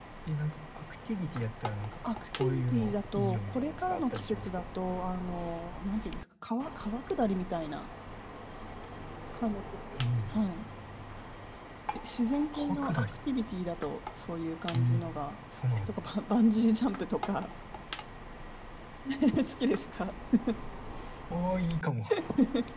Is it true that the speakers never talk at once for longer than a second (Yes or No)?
No